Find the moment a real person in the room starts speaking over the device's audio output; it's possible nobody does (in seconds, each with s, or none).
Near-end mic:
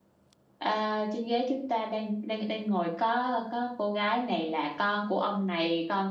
0.6 s